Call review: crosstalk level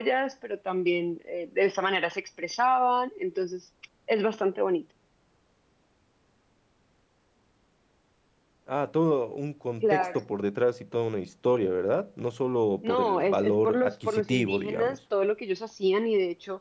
present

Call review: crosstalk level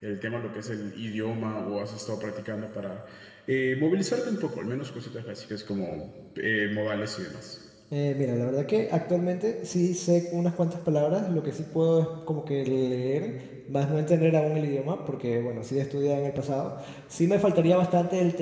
none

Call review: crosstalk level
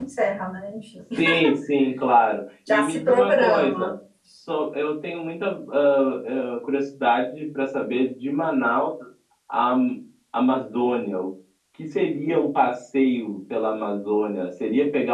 present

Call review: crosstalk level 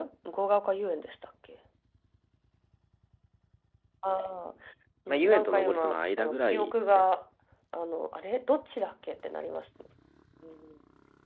present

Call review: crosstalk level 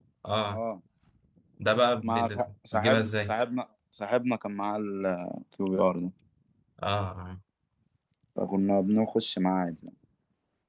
present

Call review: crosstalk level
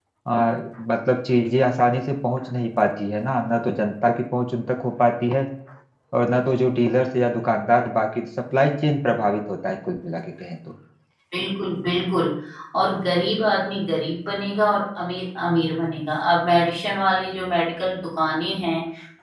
none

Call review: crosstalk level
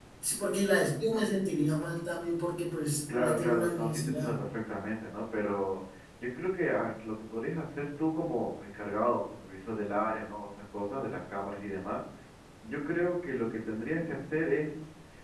present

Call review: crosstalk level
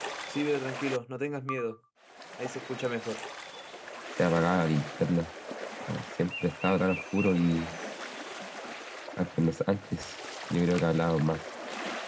none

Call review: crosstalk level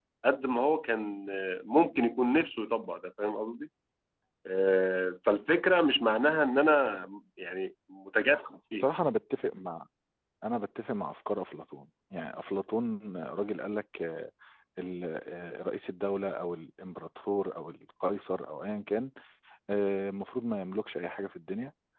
none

